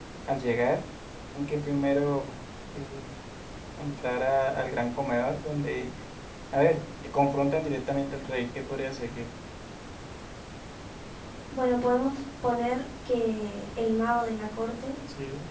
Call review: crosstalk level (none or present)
none